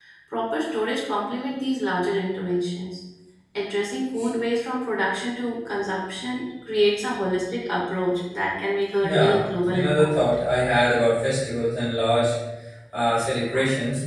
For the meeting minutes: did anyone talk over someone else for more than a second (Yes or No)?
Yes